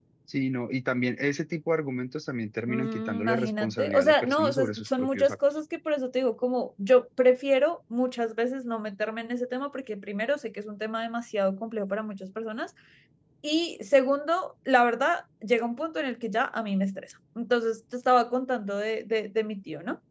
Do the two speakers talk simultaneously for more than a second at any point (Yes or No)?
Yes